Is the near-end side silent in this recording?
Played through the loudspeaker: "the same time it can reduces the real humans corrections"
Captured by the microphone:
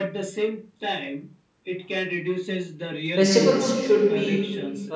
No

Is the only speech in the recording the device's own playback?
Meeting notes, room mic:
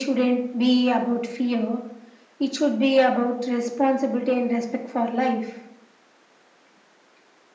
Yes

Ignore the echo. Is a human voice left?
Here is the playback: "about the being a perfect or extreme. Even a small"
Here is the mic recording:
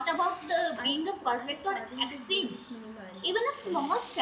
Yes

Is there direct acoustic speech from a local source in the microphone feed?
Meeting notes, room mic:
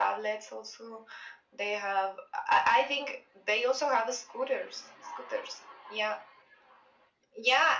No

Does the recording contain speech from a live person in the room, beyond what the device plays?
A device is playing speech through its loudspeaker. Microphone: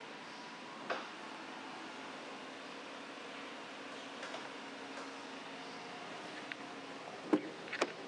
No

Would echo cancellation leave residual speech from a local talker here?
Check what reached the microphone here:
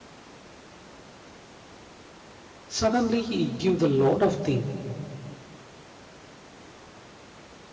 Yes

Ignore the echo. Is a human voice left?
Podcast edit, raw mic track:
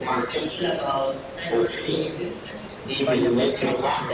Yes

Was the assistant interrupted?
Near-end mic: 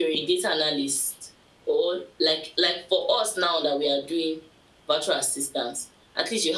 No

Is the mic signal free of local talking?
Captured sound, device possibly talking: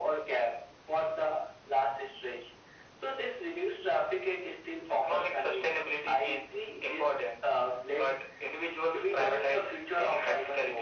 Yes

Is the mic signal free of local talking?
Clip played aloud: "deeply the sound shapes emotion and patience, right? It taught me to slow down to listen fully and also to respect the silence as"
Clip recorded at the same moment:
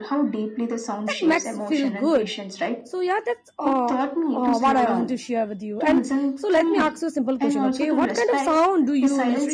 No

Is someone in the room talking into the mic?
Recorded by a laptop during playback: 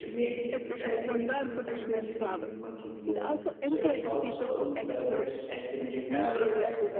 Yes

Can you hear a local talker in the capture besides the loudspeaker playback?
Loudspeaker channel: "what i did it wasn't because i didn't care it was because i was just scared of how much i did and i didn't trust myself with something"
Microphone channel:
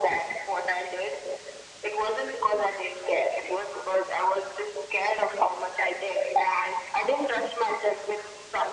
No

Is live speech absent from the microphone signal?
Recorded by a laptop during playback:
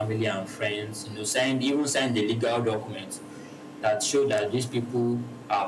Yes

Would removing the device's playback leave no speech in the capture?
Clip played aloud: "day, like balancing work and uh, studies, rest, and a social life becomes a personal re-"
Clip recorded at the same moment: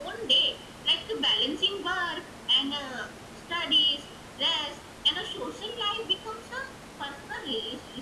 Yes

